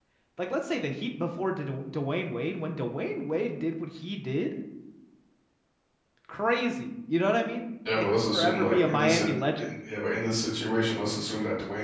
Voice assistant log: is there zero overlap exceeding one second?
No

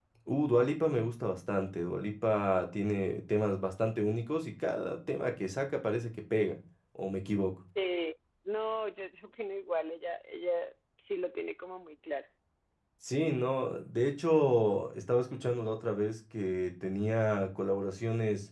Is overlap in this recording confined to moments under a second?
Yes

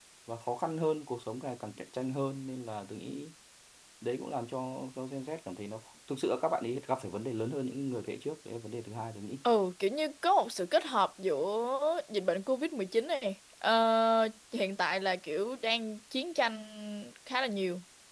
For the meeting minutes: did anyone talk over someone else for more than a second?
No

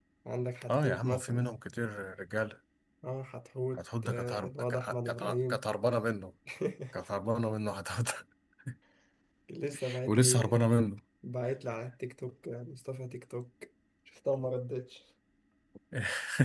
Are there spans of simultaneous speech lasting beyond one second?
Yes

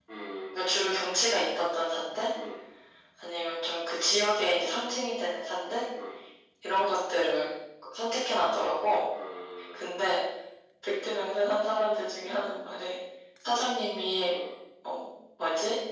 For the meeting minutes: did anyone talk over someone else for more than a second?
No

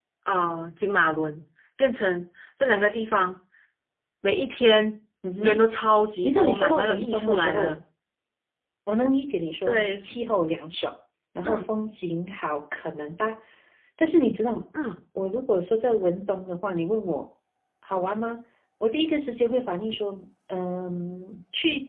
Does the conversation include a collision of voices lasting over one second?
Yes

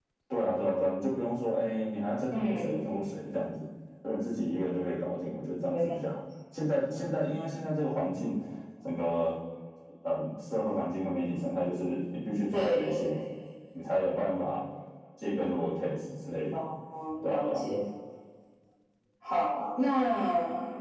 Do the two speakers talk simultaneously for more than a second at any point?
No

